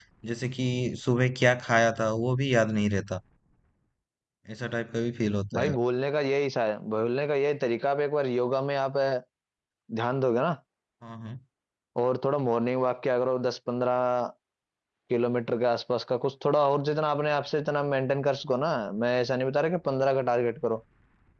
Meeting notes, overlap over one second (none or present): none